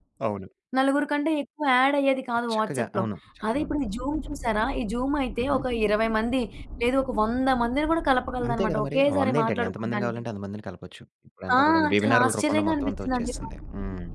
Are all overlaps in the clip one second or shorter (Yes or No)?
No